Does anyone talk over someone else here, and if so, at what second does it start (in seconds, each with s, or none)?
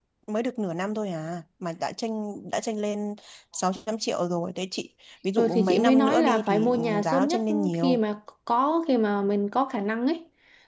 5.4 s